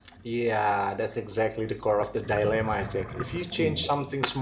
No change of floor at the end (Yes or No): Yes